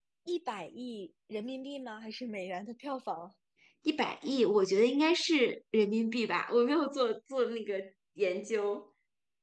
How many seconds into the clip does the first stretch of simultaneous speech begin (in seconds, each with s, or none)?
none